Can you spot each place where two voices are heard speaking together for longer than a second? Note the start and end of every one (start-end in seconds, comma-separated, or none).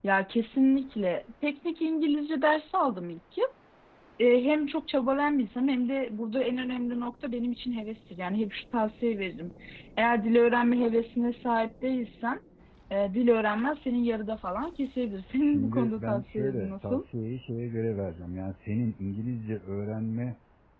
15.4-17.0